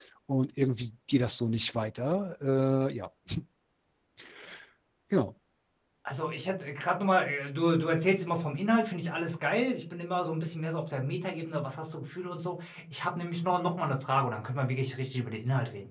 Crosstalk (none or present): none